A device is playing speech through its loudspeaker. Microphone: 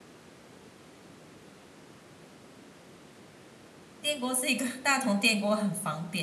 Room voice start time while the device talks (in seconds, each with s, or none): 4.0 s